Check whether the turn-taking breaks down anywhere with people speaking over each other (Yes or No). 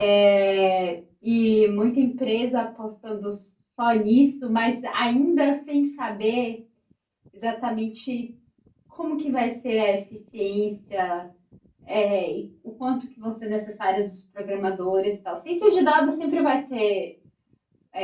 No